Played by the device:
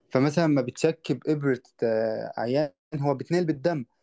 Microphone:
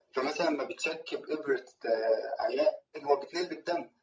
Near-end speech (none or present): none